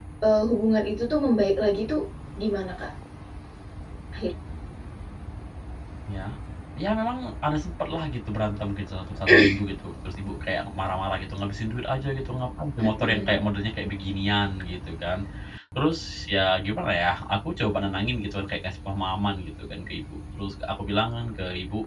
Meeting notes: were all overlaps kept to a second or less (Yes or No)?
Yes